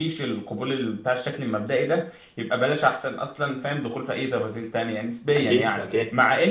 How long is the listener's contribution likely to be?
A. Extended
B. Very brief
B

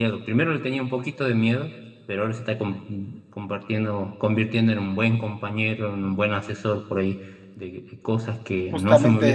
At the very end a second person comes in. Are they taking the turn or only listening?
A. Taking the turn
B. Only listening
B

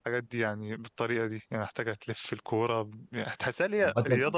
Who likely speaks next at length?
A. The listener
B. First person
B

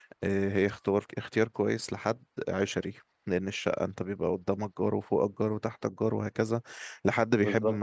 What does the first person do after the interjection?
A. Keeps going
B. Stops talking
A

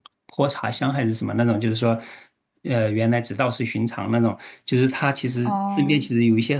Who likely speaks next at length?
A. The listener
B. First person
B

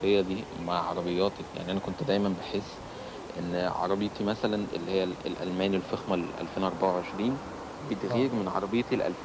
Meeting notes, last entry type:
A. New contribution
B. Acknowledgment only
B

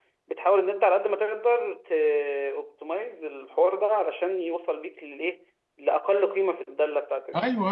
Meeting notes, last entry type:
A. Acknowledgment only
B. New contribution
A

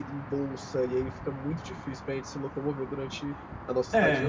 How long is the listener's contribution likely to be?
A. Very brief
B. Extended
B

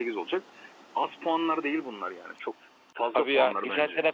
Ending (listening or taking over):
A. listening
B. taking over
B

